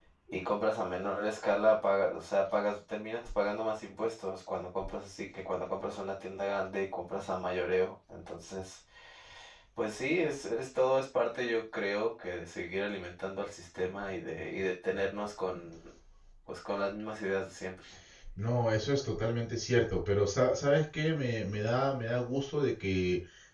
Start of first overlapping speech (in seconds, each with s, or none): none